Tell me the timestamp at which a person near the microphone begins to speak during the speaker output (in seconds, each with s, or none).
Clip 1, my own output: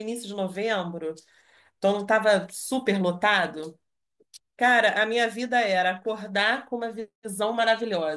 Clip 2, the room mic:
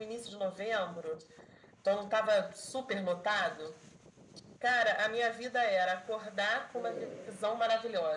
6.7 s